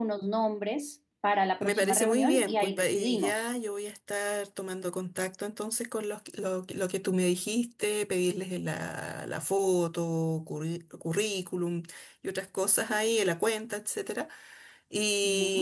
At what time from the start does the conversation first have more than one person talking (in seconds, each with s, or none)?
1.6 s